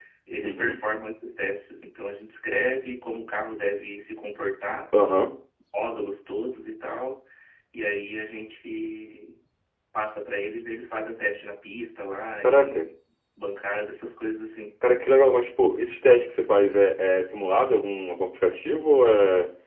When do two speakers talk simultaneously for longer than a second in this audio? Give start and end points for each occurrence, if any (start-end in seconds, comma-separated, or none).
none